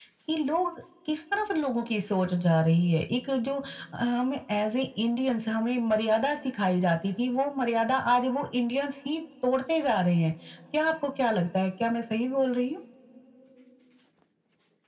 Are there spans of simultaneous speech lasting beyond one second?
No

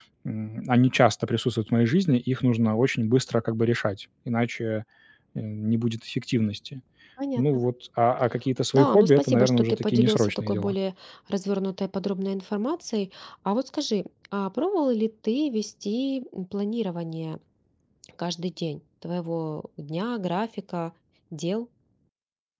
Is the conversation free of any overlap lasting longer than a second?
No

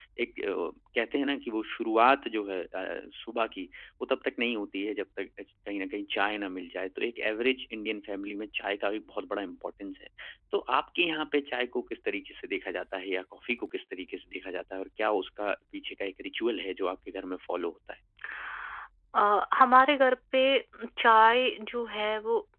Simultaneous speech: No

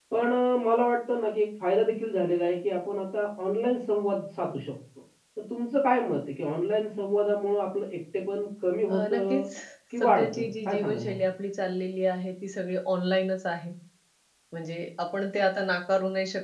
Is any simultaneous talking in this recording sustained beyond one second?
Yes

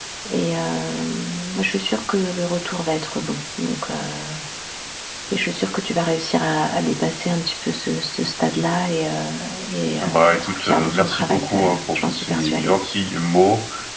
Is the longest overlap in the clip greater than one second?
Yes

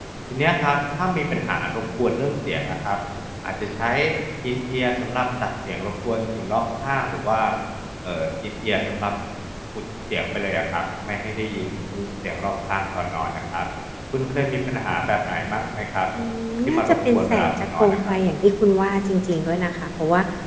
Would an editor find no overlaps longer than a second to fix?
No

